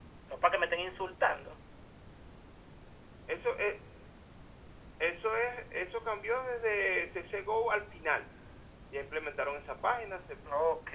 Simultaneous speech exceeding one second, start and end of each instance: none

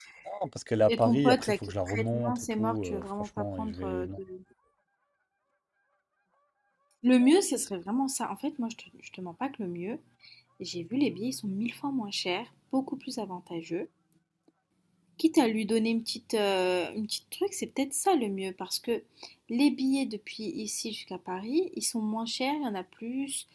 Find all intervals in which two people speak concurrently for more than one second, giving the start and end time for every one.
0.9-4.0

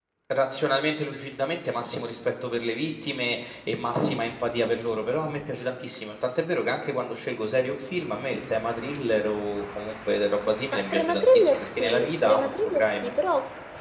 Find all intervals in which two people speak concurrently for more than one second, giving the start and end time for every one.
10.7-13.1

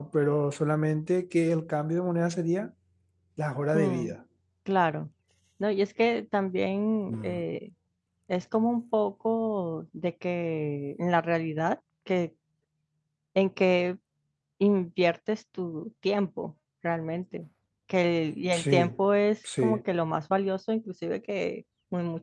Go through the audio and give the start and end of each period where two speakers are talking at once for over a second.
none

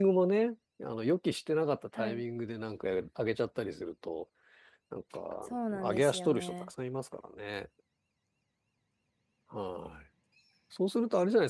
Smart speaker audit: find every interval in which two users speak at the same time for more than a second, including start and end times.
5.4-6.7

